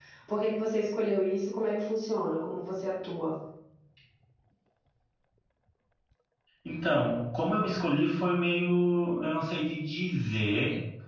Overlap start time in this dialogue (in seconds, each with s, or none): none